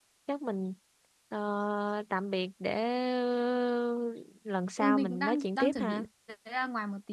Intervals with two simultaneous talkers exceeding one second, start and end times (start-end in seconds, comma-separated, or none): 4.8-6.0